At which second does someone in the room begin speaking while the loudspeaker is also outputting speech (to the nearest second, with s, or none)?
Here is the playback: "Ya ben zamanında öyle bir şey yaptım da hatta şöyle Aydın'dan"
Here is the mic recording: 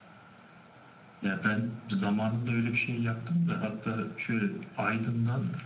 none